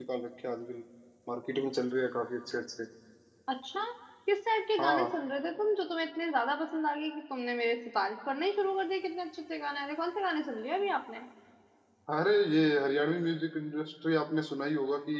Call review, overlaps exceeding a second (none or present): none